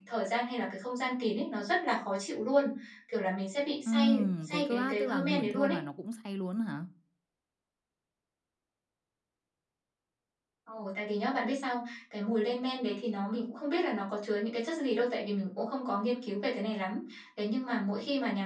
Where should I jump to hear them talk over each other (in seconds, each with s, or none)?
3.8 s